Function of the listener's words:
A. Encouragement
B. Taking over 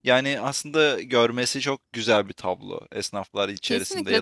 B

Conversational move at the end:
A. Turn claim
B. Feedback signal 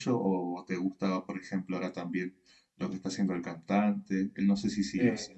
B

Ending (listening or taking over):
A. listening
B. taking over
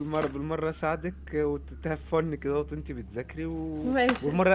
A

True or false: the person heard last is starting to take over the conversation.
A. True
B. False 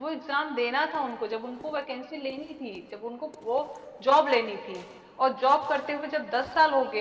B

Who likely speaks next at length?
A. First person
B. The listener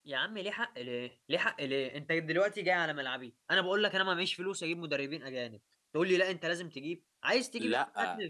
B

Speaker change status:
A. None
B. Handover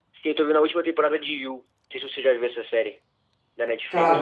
B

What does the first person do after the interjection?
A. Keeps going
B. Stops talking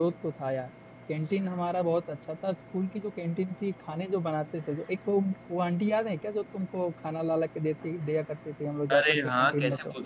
B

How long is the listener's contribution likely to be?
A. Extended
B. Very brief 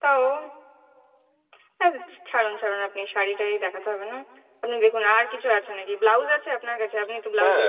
A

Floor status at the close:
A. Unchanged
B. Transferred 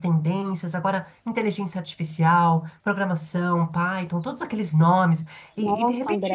B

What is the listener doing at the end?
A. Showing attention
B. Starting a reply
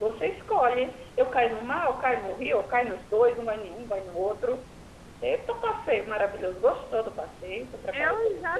B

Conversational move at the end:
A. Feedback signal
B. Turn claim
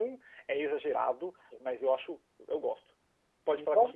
A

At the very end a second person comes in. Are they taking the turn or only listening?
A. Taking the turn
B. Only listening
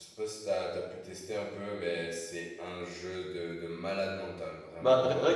A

